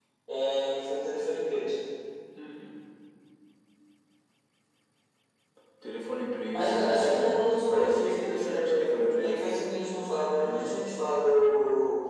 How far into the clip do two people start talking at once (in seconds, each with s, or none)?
6.5 s